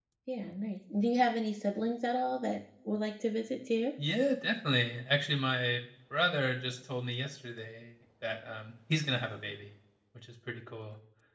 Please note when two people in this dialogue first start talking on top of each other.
none

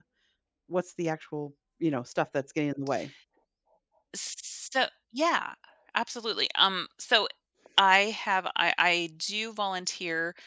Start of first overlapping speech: none

